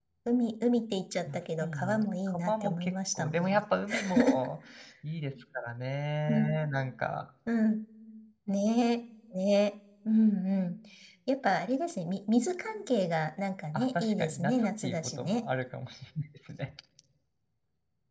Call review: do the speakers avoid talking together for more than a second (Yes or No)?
No